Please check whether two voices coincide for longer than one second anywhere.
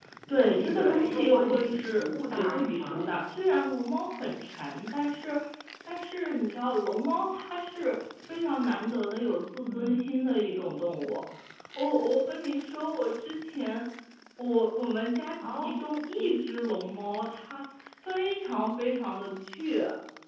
Yes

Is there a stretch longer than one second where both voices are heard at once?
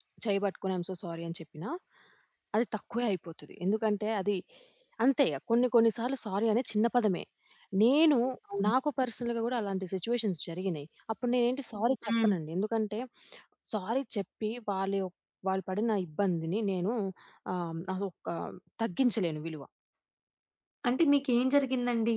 No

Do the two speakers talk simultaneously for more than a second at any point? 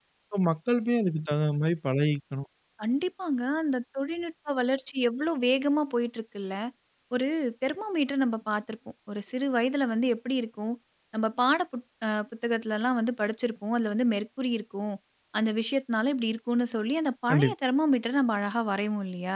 No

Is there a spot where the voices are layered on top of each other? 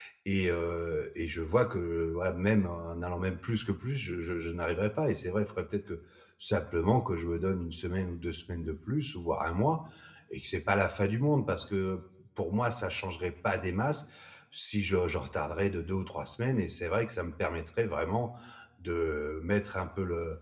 No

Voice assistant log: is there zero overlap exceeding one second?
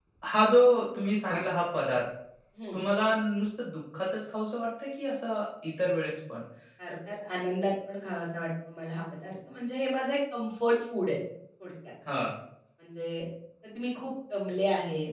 Yes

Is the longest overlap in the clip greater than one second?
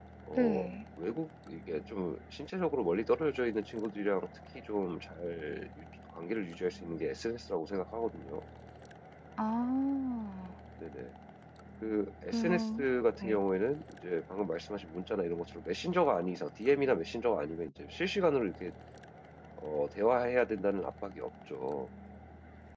No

